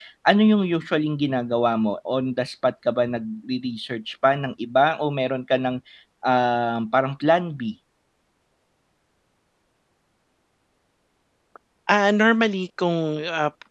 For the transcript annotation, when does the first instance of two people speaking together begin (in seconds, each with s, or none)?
none